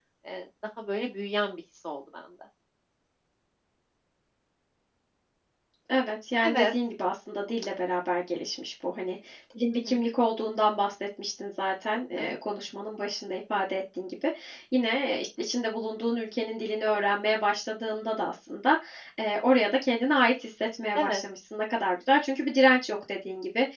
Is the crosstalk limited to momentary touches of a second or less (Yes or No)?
Yes